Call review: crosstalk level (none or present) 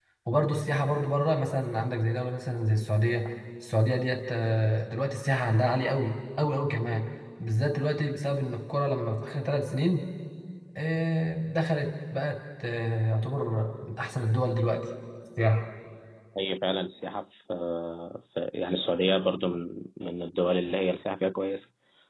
none